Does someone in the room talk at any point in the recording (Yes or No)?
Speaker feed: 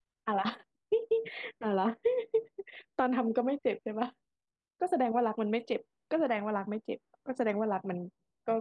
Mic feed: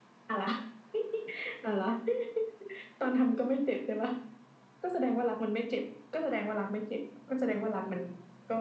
No